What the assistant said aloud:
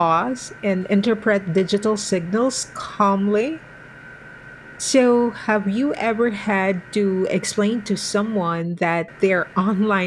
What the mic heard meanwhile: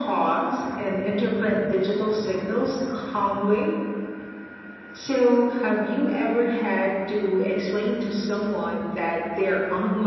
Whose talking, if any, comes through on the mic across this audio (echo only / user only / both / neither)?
echo only